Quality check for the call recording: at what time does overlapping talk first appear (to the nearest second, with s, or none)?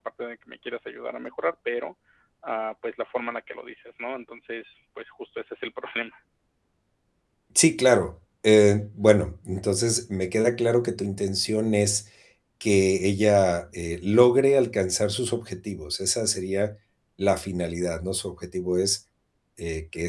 none